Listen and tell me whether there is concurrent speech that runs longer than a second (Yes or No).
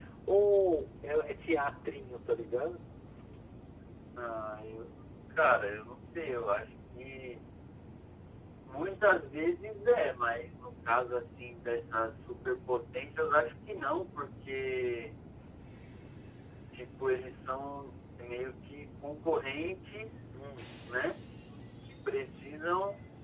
No